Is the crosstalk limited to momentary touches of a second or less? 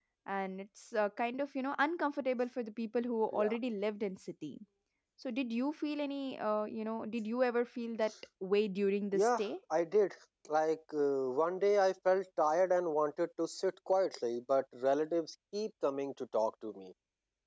Yes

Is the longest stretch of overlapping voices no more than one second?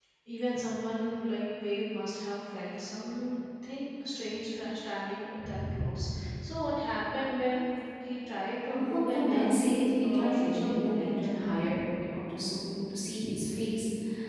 No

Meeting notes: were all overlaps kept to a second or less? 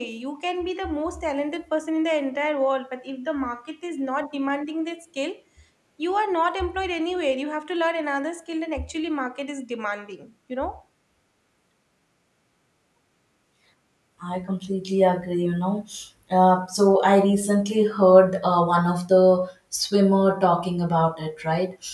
Yes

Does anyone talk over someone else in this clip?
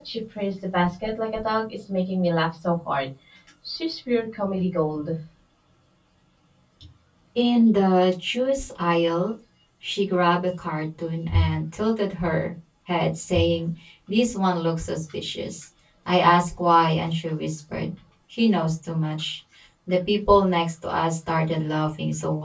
No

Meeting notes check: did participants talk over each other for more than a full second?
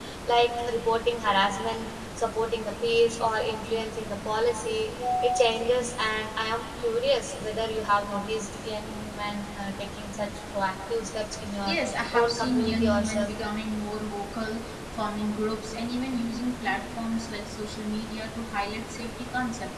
Yes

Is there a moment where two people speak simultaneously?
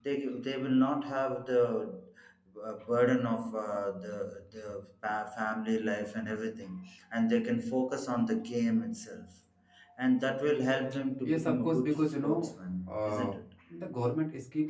Yes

